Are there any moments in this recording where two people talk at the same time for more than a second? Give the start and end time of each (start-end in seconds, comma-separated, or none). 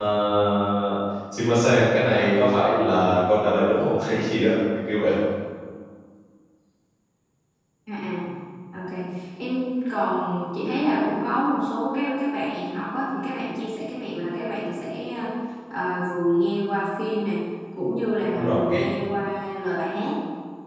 none